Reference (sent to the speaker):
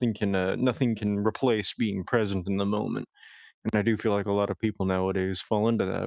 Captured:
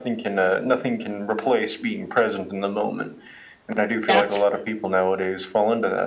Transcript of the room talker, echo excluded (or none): That's